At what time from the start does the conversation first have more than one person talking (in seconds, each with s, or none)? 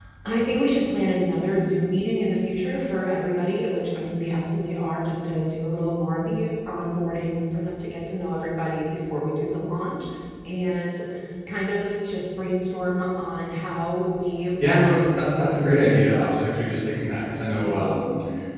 14.6 s